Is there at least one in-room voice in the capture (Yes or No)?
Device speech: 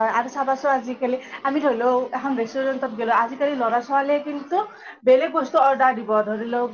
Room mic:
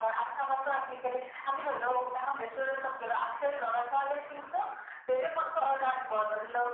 No